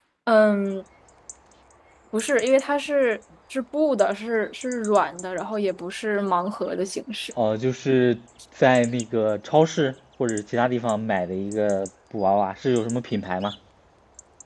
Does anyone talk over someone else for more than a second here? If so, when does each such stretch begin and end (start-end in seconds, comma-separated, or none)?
none